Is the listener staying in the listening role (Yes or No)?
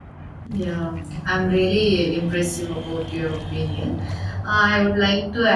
Yes